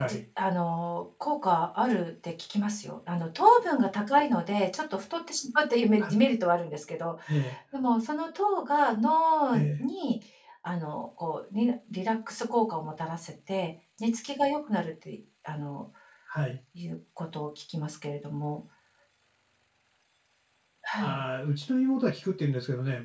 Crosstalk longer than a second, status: none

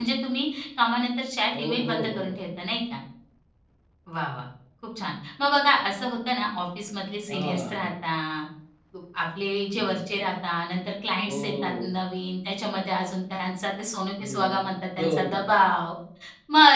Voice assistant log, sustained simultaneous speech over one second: present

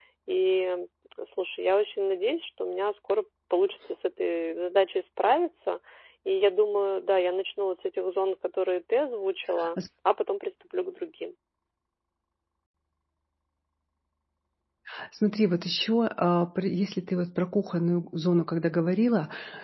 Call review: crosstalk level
none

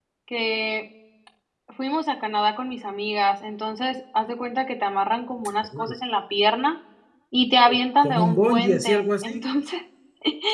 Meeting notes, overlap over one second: present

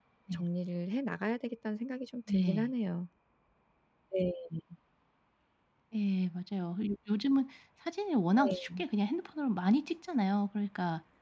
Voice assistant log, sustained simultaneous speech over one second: none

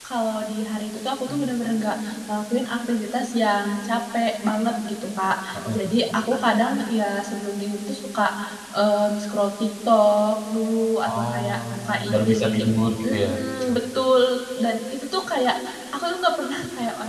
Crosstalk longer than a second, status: present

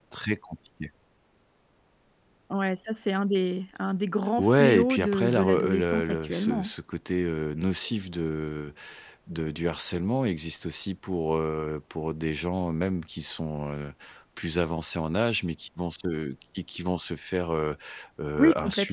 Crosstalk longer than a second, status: present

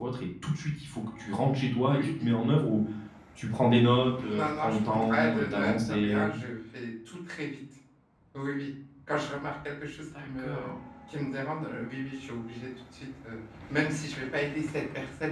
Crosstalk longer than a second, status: present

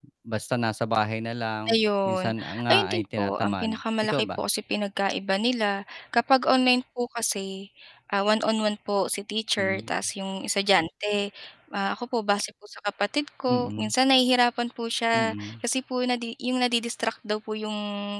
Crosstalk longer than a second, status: present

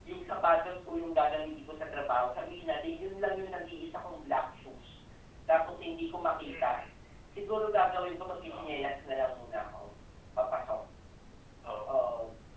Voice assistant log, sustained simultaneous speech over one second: none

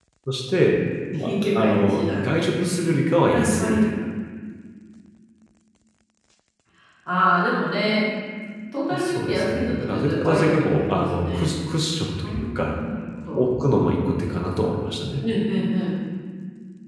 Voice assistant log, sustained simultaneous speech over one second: present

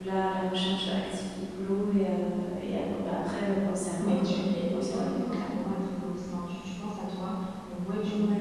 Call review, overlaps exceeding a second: present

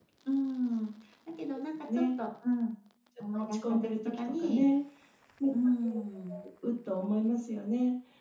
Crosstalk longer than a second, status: present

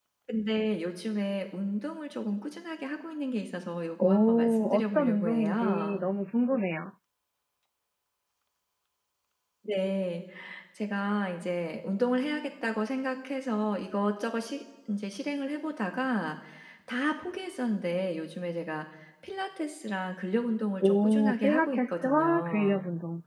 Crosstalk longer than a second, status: present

